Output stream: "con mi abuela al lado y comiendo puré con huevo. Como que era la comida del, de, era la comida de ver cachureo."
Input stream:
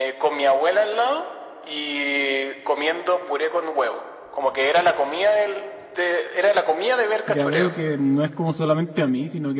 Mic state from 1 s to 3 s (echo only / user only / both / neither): echo only